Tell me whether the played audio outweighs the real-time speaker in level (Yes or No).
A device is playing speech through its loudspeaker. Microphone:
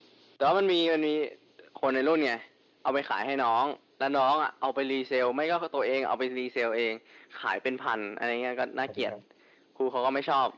Yes